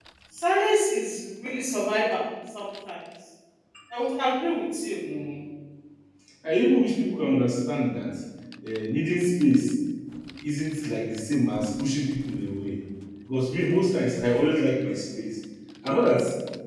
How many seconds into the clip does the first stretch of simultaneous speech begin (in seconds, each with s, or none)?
none